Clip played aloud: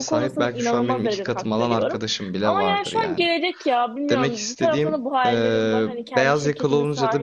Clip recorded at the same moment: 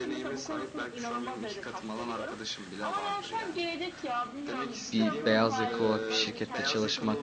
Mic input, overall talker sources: both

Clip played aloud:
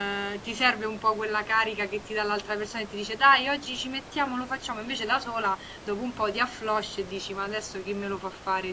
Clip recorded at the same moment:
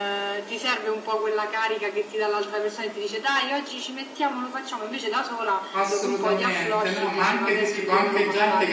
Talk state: both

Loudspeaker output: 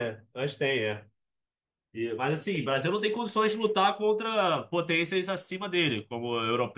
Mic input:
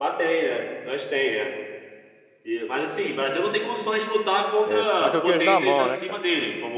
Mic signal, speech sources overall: both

